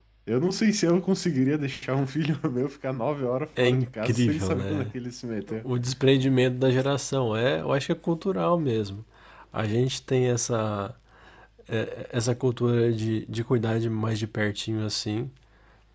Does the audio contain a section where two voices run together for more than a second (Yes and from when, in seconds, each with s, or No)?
Yes, from 3.6 s